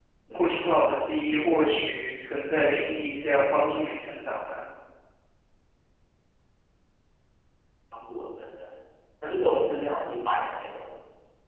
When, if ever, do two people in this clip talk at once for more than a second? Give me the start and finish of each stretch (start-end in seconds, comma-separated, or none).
none